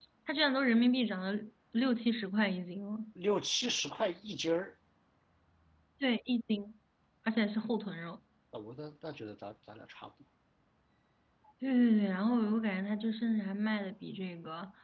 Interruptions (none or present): none